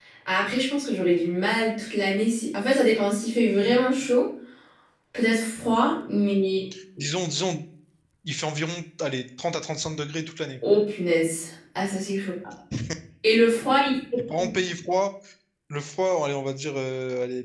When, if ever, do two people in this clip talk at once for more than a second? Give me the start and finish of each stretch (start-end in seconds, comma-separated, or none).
none